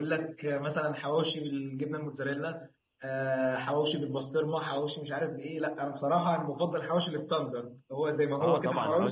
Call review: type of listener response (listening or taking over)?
taking over